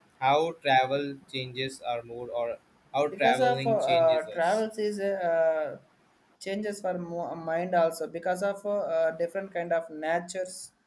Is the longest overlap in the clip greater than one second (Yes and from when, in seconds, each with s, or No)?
Yes, from 3.1 s